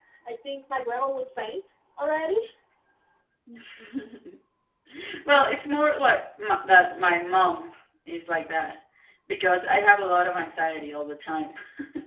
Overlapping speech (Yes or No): No